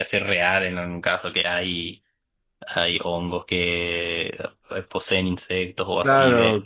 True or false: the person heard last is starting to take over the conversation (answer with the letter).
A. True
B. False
A